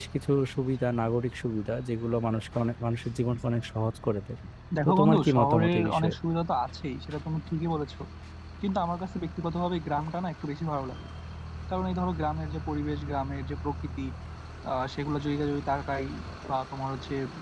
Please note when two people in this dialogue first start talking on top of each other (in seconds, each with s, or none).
4.8 s